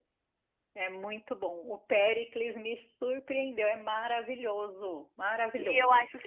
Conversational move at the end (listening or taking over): taking over